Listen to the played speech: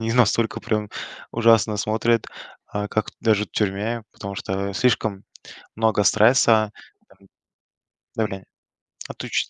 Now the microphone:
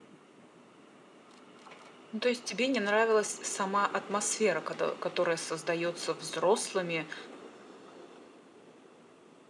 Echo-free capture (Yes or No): Yes